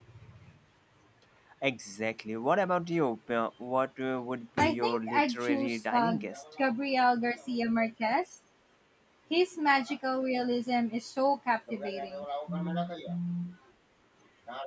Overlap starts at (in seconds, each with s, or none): 4.6 s